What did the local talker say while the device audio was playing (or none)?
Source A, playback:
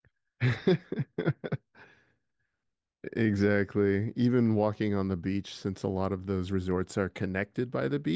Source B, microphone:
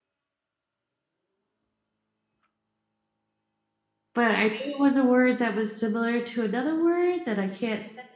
but I knew it was a word that was similar to another word that I can't